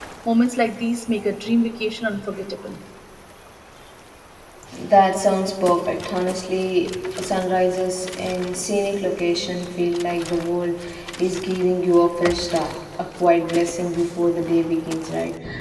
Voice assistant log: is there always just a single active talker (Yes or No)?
Yes